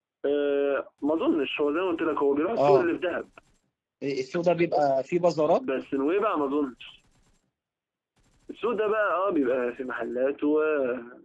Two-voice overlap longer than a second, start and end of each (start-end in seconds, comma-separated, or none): none